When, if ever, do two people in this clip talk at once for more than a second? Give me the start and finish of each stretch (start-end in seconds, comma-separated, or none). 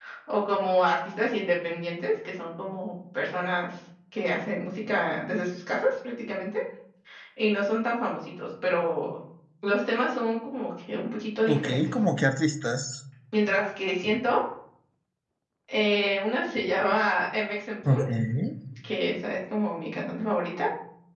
none